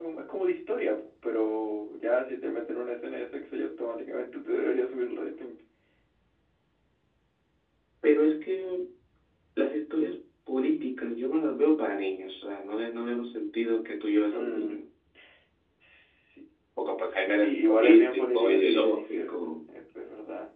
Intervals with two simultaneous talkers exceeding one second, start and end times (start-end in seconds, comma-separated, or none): 17.3-19.3